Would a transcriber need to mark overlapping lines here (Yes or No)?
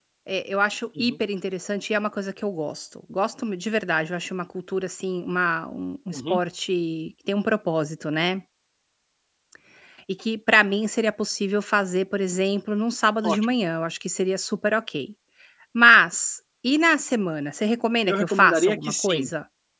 Yes